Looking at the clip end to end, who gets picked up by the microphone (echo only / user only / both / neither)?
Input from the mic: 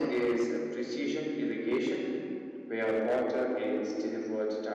echo only